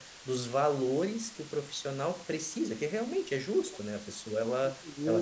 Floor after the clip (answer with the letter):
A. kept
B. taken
A